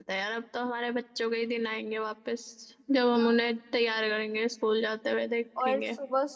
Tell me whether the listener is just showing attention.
No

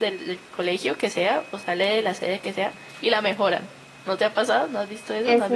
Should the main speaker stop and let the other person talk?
Yes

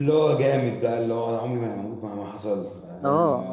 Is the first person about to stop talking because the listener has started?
Yes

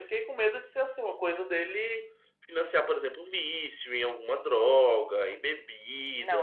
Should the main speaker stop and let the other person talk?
Yes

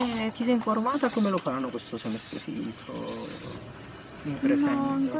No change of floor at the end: No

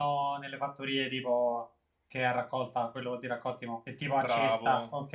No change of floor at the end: No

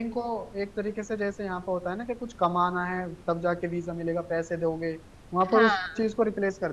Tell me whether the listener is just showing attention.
Yes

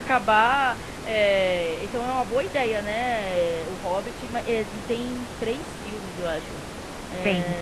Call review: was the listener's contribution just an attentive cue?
Yes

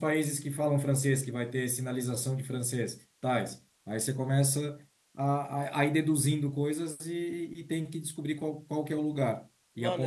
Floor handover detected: Yes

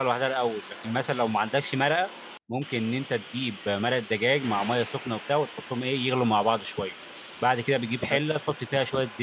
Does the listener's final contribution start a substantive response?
No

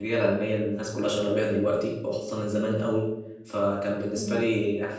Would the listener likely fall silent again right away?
Yes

